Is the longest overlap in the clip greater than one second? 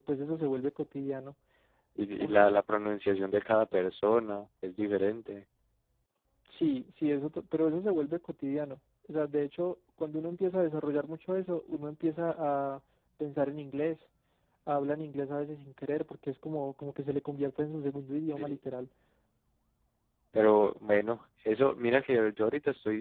No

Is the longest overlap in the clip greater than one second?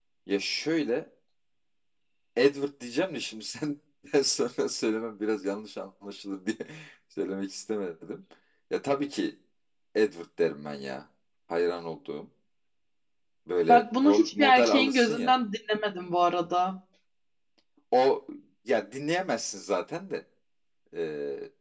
Yes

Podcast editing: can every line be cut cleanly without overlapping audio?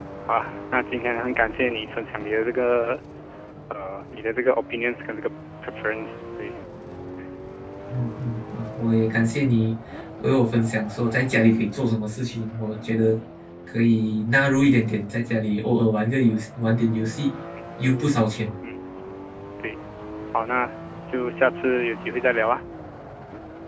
Yes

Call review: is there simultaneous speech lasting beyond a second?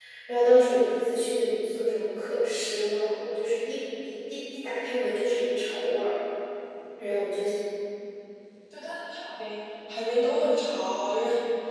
No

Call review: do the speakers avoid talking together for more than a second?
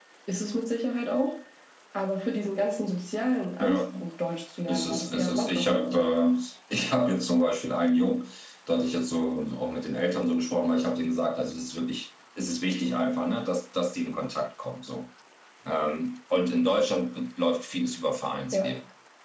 No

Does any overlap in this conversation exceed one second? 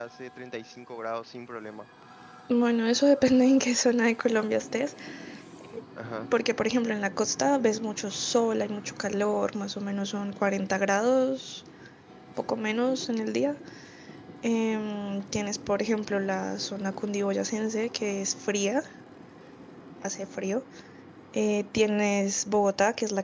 No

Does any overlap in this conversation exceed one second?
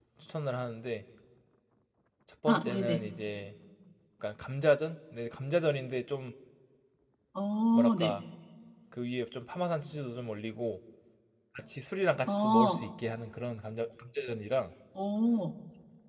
No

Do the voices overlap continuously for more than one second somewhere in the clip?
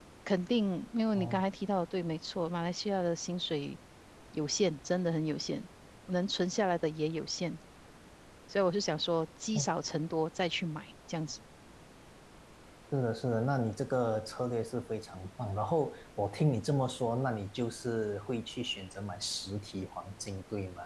No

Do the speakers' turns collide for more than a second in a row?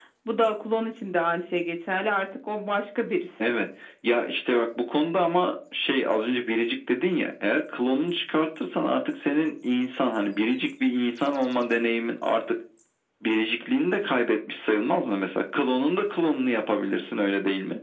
No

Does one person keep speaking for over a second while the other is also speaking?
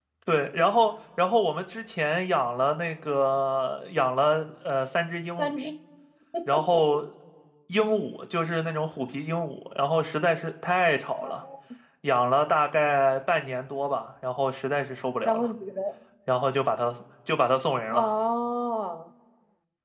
No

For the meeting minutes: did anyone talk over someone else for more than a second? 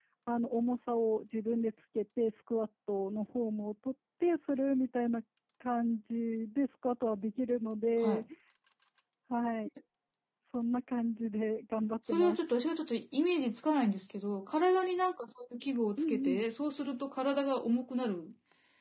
No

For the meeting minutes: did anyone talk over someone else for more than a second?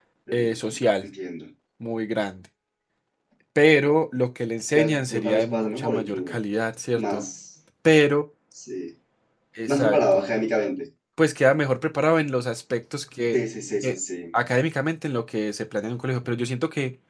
Yes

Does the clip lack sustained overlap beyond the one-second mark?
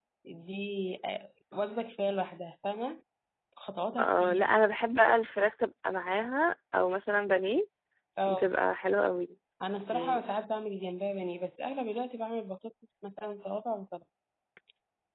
Yes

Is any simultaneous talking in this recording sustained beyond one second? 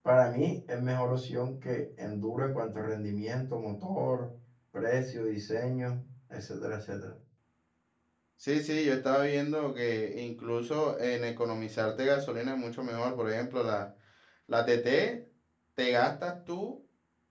No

